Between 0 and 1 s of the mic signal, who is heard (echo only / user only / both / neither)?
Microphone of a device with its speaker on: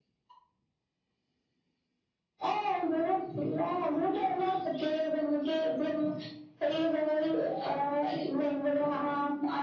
neither